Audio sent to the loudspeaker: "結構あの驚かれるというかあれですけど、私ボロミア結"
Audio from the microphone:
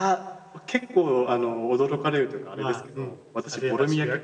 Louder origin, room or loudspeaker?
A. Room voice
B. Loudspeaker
B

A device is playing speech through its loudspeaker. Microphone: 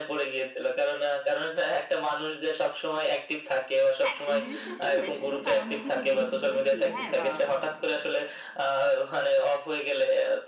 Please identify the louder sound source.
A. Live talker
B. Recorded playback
B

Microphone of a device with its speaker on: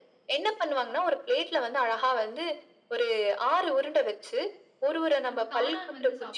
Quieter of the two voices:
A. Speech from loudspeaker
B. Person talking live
B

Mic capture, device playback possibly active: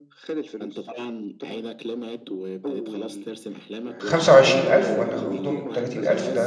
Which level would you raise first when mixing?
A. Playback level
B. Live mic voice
A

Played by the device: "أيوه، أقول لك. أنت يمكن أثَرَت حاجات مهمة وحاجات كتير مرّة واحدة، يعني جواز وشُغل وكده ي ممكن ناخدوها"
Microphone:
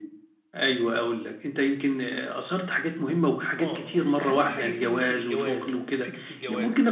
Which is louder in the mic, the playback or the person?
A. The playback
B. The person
A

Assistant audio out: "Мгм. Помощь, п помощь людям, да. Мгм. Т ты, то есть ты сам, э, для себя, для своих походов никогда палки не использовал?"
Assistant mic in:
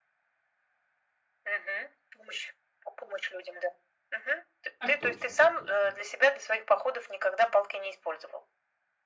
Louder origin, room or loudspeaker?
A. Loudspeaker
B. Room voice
A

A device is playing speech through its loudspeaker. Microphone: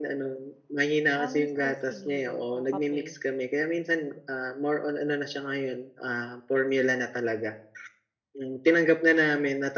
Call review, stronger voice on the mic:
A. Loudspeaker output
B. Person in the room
A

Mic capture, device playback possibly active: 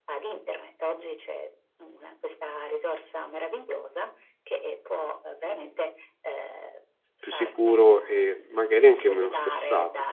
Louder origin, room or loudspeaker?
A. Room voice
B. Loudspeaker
A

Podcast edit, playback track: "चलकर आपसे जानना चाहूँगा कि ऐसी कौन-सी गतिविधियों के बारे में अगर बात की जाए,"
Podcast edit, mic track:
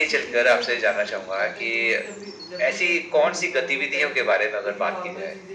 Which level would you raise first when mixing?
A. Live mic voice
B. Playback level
A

